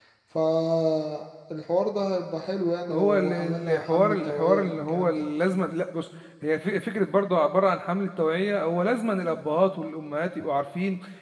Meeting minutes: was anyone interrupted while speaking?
Yes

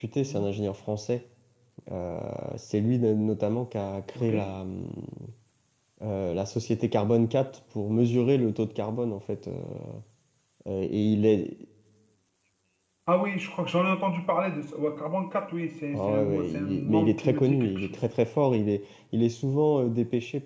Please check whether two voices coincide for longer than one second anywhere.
Yes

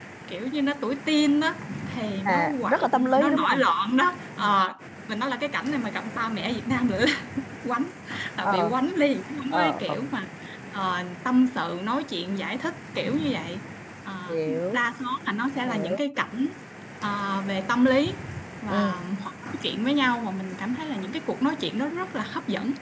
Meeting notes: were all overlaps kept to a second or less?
No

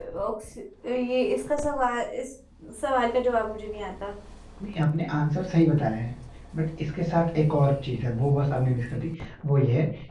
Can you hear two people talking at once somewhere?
No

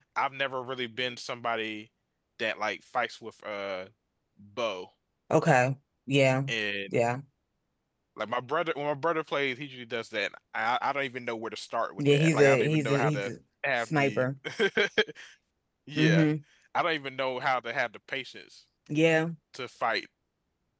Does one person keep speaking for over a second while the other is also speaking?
Yes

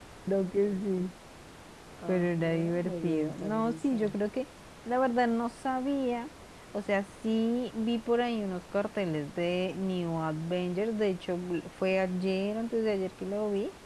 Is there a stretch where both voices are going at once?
Yes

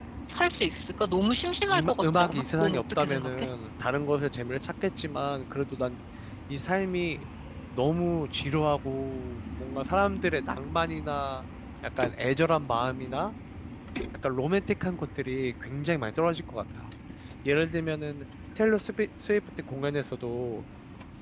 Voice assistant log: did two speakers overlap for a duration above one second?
Yes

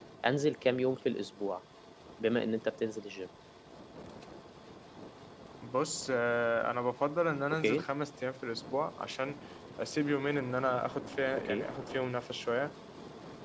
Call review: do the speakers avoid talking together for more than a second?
Yes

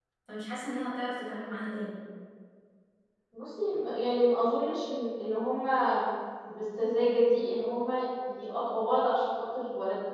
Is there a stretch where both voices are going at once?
No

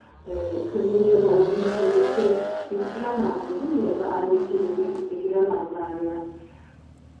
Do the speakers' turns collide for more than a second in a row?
No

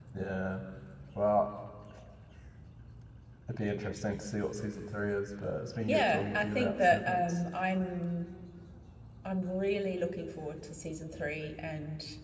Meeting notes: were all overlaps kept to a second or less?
No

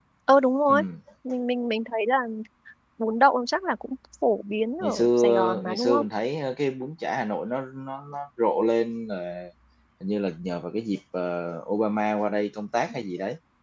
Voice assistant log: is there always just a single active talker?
No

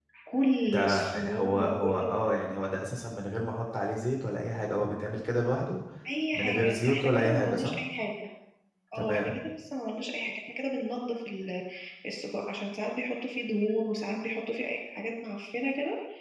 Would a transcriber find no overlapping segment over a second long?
No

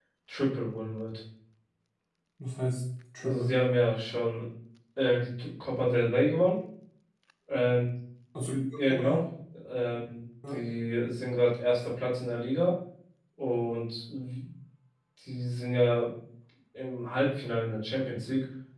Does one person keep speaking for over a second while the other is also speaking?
No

